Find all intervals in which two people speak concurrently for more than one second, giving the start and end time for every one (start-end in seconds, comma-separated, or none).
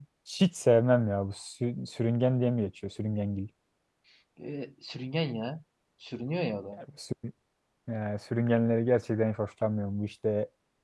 none